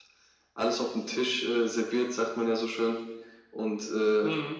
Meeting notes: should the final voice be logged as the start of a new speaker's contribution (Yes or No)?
No